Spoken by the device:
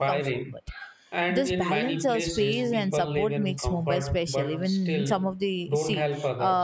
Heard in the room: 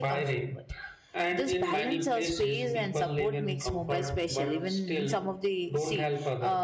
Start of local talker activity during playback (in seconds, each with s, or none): none